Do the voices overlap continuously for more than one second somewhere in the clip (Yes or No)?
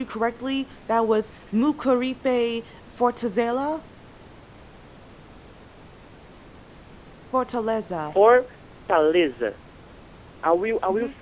No